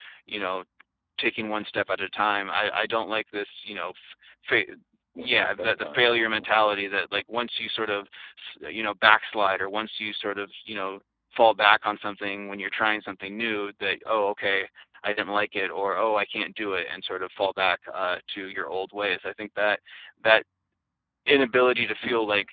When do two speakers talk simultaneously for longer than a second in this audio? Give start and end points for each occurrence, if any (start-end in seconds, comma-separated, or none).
5.2-6.4